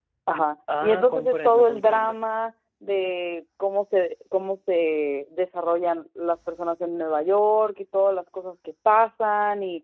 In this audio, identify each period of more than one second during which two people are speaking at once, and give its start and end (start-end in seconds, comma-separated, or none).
0.8-2.2